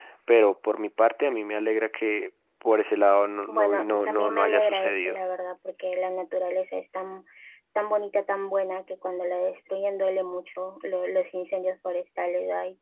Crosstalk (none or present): present